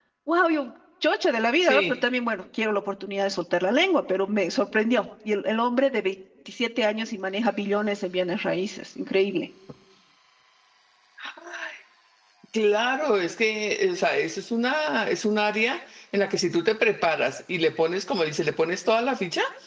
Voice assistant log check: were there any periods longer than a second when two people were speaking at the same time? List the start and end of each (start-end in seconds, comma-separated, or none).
none